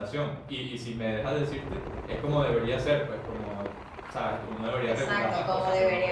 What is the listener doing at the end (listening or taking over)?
taking over